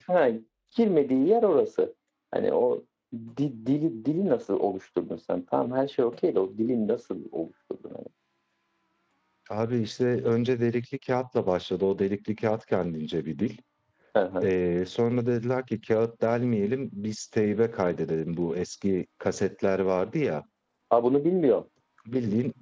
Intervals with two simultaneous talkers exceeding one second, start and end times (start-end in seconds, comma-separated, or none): none